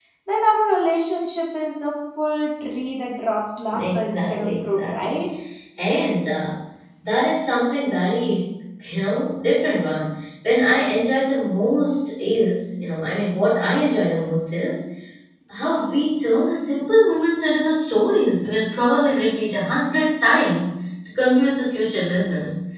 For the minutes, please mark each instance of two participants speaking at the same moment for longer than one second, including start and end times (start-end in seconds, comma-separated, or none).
3.7-5.2